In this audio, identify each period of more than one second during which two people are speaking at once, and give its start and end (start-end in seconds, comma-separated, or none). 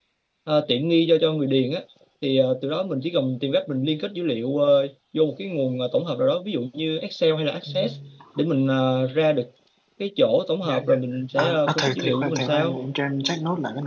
11.4-12.8